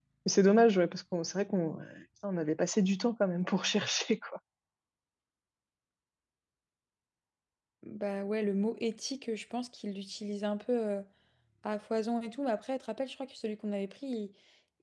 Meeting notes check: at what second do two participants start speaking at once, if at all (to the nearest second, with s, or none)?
none